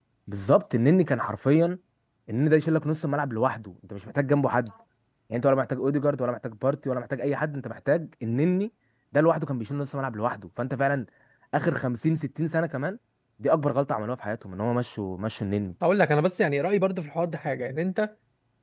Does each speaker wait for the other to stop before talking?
Yes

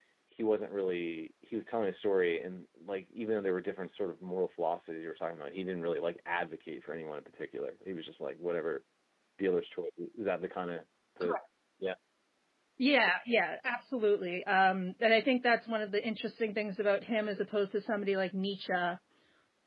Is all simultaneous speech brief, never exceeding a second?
Yes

